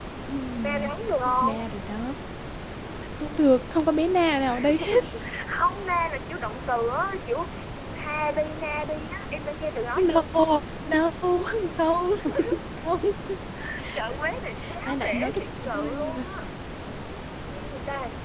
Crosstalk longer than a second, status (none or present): present